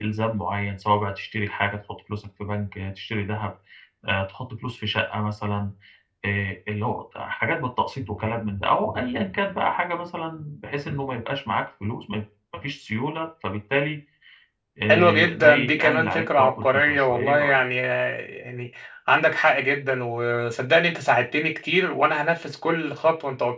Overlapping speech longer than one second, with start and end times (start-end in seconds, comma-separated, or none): 14.9-17.6